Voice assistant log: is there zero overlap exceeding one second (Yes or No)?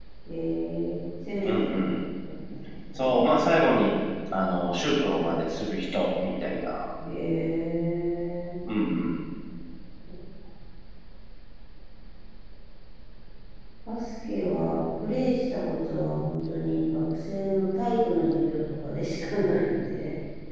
Yes